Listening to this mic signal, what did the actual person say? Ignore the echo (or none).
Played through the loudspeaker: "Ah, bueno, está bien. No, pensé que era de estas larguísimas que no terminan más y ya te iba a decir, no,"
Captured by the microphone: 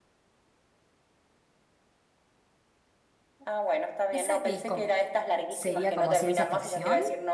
¿Esa que es como, sería como ciencia ficción?